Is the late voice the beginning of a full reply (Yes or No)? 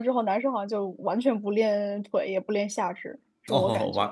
Yes